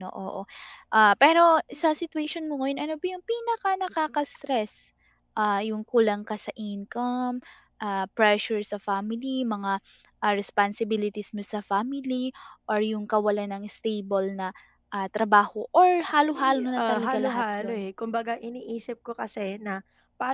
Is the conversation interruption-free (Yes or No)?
No